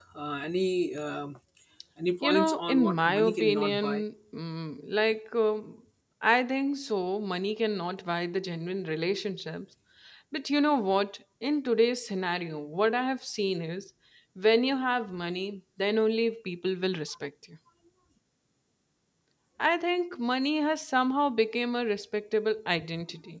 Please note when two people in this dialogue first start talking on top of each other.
2.2 s

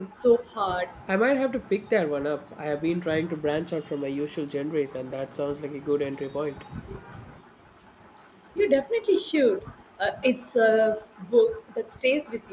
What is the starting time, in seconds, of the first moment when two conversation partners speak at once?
none

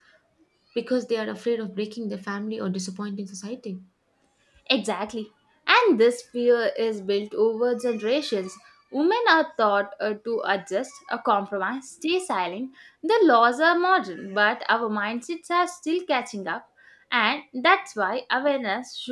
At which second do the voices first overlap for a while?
none

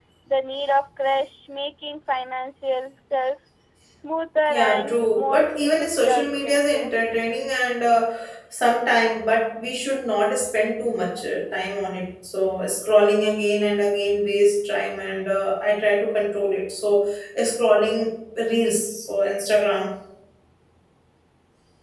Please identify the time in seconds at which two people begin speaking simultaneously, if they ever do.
4.5 s

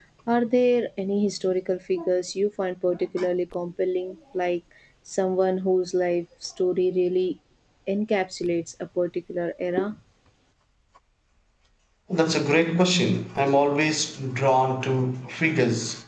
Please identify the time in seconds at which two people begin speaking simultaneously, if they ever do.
none

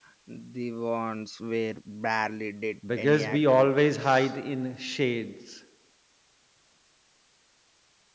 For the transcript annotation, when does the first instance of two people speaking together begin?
2.8 s

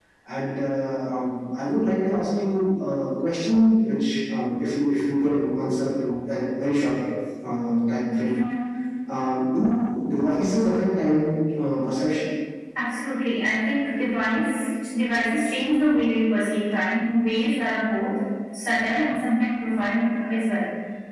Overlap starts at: none

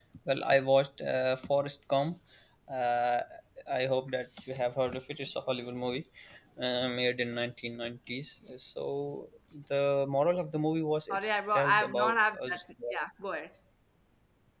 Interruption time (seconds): 11.1 s

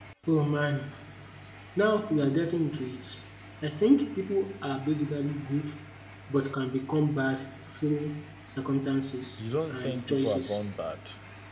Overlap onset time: 9.4 s

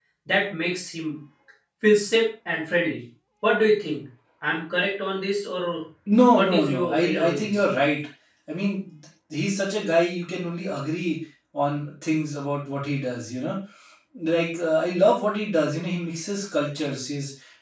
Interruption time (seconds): 6.4 s

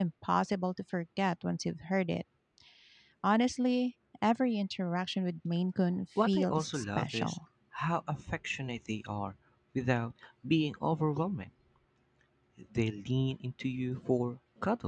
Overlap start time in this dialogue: 6.2 s

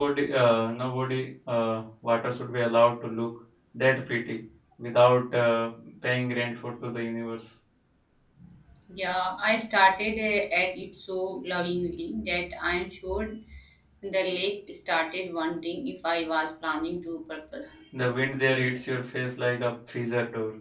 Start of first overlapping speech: none

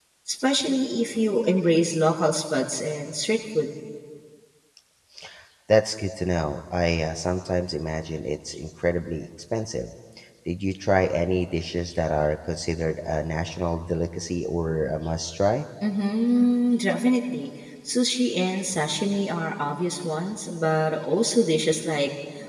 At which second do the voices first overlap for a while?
none

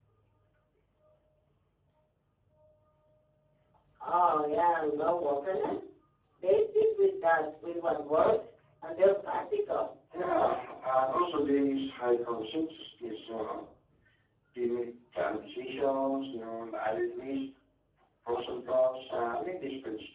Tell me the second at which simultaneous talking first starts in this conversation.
none

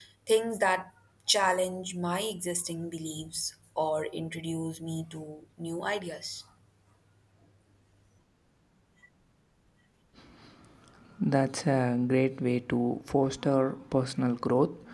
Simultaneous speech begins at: none

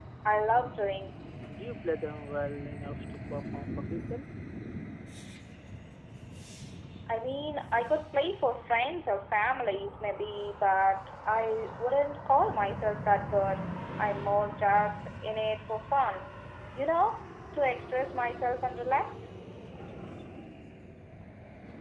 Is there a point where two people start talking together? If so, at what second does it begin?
none

